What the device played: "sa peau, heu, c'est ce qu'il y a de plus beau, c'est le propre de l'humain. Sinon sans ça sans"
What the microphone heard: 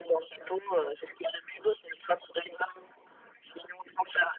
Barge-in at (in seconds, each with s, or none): none